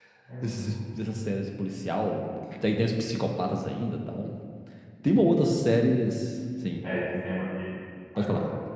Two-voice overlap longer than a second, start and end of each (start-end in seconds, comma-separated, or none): none